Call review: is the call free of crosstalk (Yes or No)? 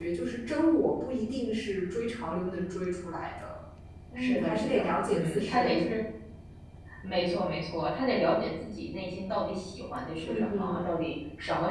No